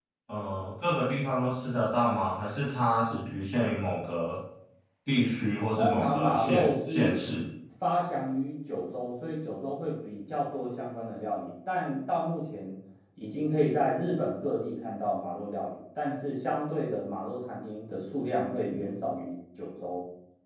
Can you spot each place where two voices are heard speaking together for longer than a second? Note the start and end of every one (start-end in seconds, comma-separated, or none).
5.8-7.2